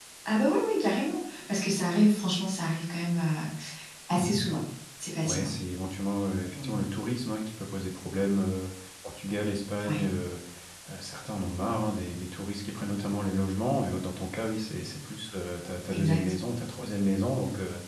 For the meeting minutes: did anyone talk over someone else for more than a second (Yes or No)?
No